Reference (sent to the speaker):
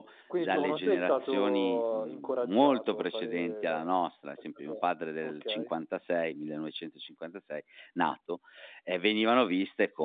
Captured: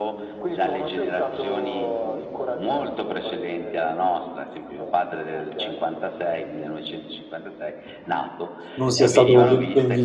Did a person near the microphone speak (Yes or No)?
Yes